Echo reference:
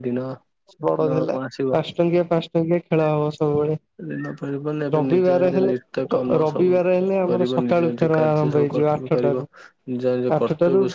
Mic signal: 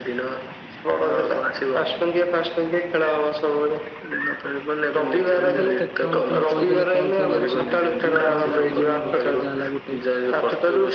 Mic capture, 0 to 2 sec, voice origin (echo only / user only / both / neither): echo only